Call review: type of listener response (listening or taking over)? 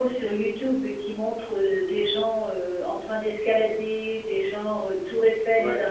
listening